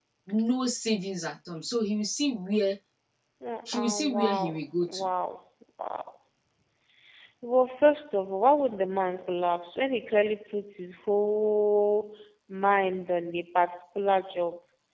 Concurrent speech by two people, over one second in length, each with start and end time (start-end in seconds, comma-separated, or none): 3.6-5.1